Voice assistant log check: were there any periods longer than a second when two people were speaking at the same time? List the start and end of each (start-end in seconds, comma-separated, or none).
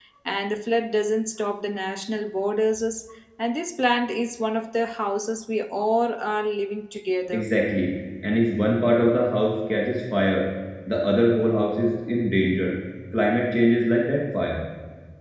none